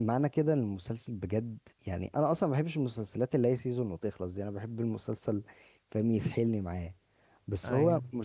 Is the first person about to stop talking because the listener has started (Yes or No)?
No